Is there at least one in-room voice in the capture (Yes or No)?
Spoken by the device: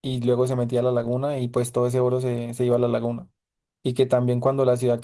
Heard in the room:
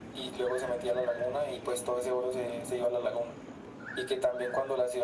No